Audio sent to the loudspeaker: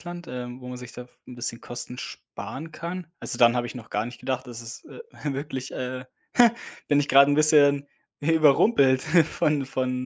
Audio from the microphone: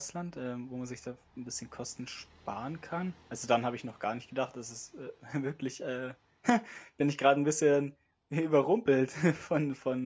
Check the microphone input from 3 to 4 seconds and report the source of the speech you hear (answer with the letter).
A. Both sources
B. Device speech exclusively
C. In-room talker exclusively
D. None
B